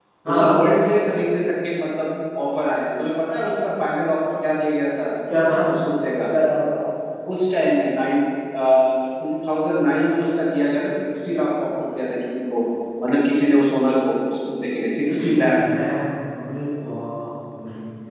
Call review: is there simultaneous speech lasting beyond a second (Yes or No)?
No